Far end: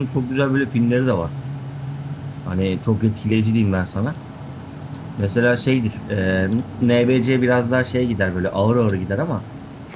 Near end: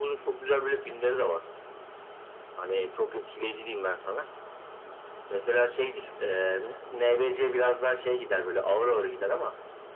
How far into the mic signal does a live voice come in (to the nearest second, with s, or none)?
none